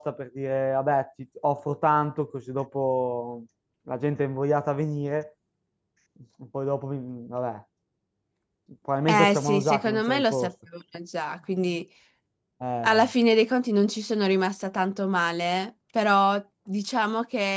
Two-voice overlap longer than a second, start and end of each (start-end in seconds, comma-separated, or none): 9.1-10.5